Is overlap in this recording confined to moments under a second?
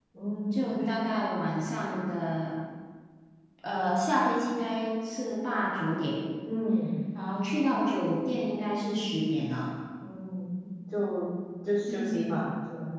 Yes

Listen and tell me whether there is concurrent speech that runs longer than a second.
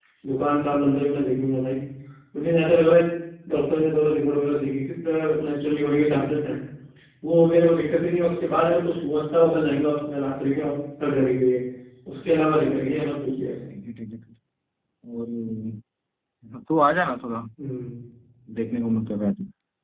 No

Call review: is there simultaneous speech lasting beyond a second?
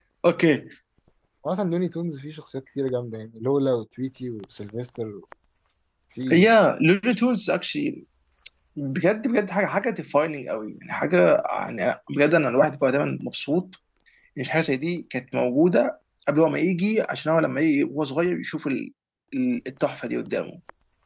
No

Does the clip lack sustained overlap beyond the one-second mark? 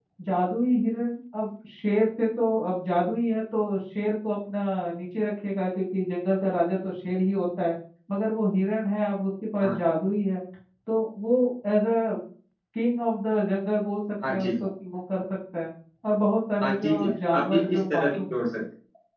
No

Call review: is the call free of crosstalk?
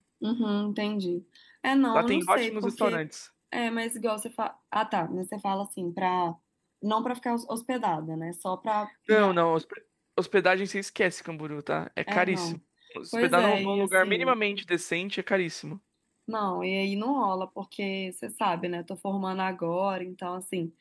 No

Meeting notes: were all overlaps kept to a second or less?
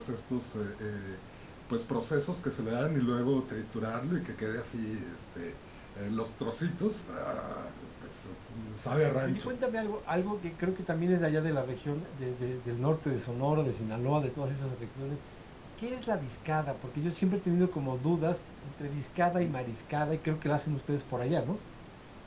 Yes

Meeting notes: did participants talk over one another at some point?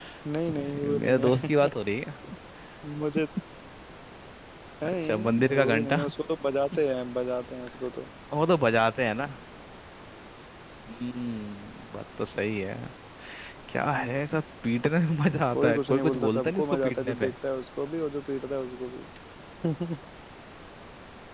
Yes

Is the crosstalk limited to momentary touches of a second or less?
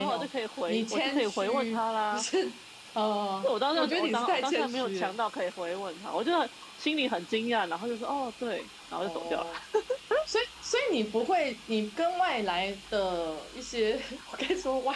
No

